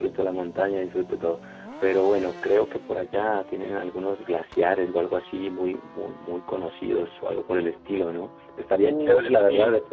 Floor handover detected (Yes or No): No